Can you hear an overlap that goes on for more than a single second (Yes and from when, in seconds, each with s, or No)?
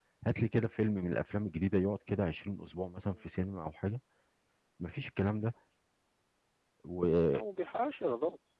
No